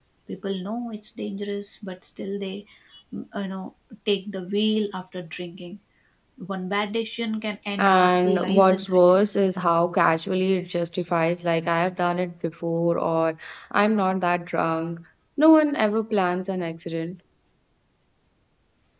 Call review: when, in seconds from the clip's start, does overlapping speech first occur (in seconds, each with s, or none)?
7.8 s